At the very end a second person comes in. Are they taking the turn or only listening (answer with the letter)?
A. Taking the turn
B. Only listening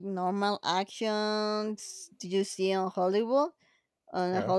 B